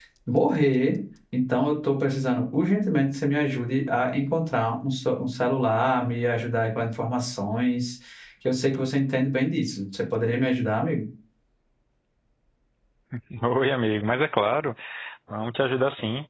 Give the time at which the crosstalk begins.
none

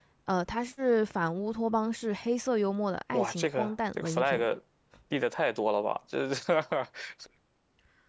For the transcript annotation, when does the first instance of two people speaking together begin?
3.1 s

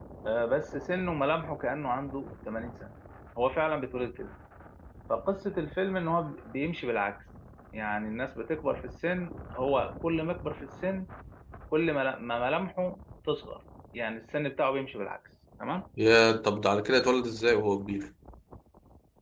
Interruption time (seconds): none

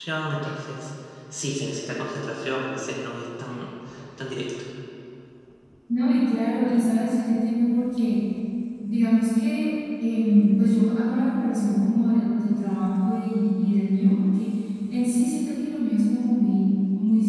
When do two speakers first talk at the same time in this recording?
none

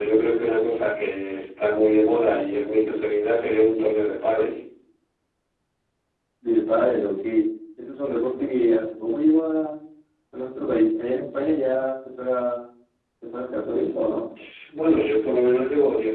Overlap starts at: none

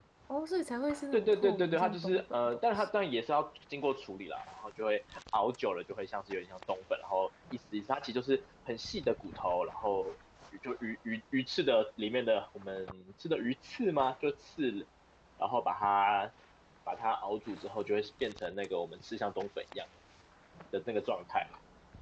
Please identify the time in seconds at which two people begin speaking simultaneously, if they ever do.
1.1 s

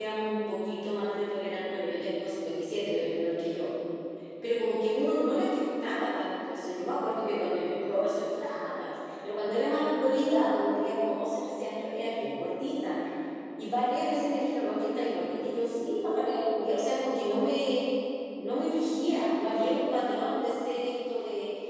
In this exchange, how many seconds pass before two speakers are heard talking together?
none

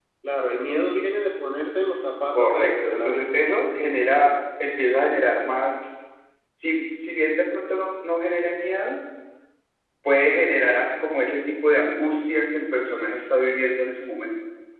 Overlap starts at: 2.3 s

